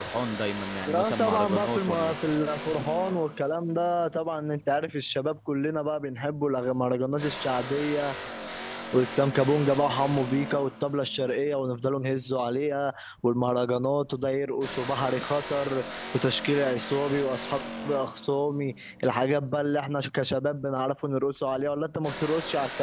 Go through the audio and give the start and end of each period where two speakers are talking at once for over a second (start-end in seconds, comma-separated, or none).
0.9-2.1